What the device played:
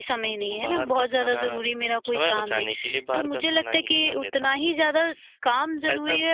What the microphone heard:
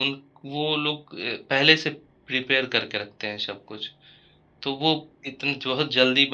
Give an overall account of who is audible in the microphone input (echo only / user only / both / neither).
user only